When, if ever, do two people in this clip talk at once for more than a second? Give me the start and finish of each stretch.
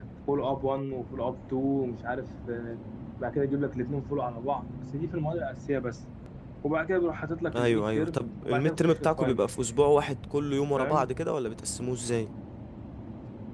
7.6-9.4

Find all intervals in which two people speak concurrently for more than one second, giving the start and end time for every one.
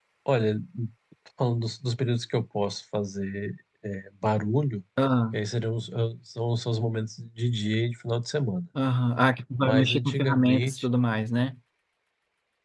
9.6-10.9

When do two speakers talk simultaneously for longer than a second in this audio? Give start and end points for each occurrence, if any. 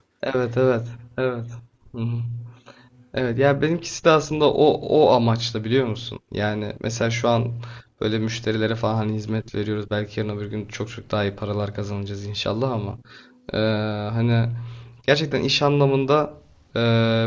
none

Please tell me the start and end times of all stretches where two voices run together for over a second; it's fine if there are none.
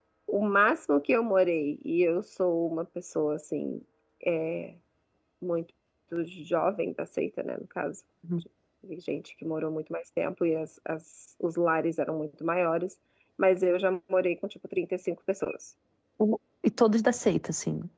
none

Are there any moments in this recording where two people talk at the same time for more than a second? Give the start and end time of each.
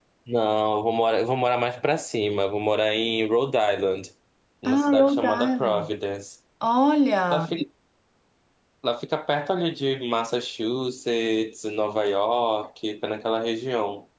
4.7-5.9

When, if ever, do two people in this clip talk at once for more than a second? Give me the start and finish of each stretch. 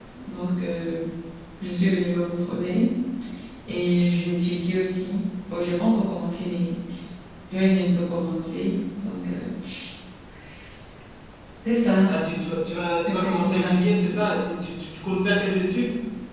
13.1-14.3

